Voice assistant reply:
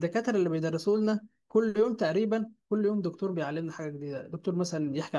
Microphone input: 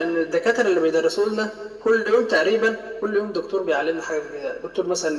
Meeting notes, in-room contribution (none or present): none